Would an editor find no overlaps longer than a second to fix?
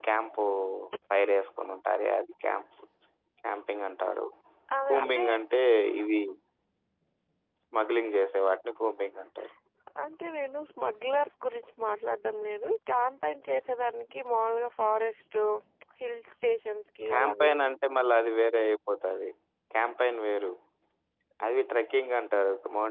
Yes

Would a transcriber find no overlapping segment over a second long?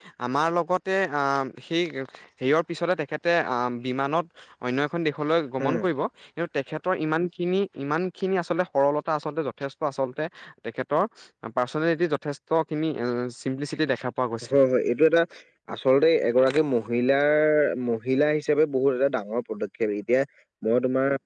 Yes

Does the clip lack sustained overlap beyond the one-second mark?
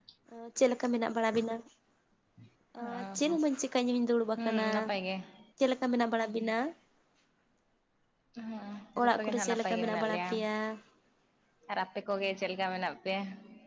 No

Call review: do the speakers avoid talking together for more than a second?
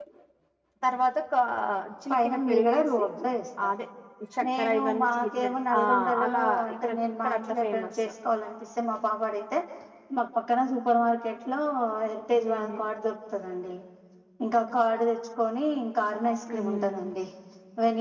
No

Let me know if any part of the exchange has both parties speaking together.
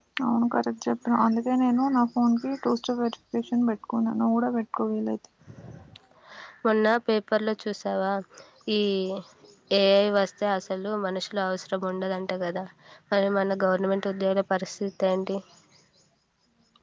No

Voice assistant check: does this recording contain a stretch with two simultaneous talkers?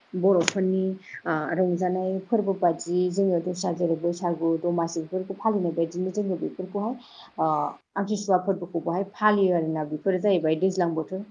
No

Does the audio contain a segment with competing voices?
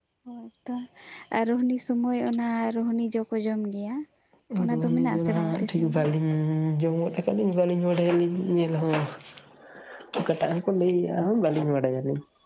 Yes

